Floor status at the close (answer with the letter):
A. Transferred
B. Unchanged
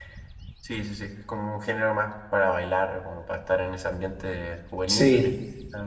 B